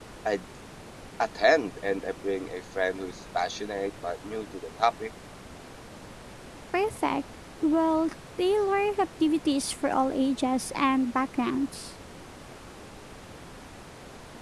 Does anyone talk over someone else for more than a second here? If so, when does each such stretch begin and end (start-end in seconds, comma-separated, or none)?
none